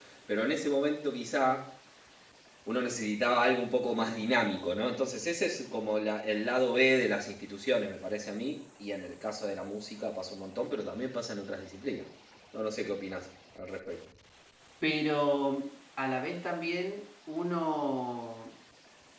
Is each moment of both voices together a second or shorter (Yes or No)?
Yes